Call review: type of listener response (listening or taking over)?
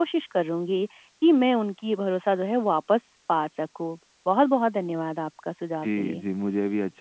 taking over